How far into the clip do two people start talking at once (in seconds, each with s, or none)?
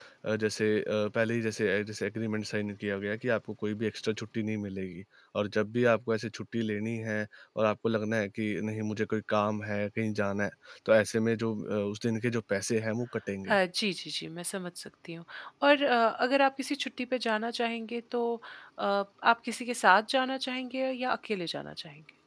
none